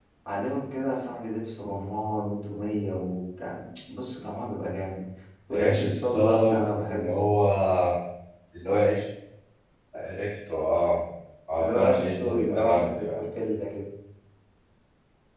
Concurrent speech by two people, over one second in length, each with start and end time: 5.5-7.2, 11.6-13.2

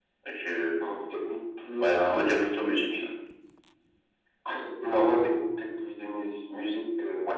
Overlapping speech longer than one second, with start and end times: 1.8-3.0

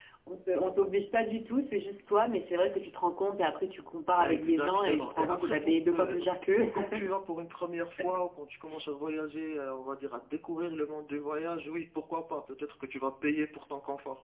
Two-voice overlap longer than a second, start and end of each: 4.2-6.2

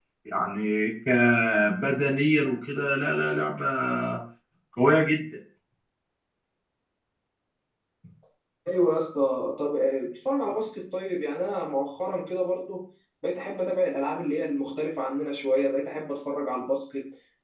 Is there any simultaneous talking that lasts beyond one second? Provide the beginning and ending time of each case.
none

